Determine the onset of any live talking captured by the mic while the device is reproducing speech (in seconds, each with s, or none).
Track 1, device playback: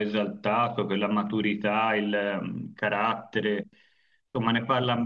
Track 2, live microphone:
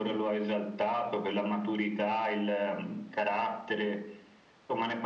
none